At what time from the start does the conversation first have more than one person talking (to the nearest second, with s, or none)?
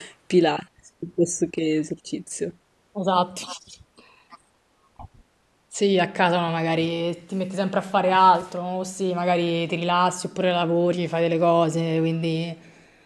none